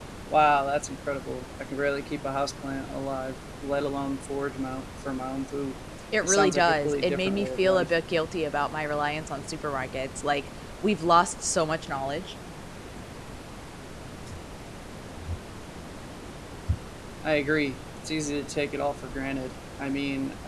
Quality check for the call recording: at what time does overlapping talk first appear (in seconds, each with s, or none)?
6.2 s